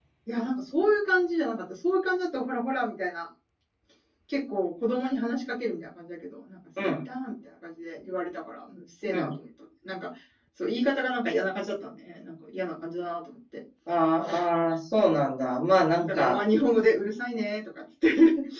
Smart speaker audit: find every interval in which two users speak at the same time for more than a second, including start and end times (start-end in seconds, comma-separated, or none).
none